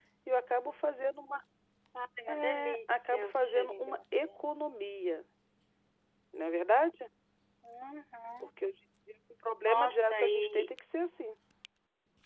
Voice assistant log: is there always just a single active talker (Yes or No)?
No